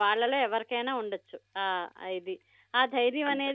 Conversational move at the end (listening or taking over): listening